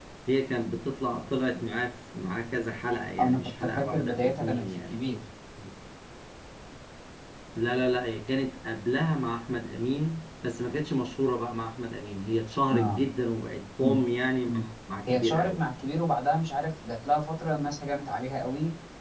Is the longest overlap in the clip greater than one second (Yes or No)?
Yes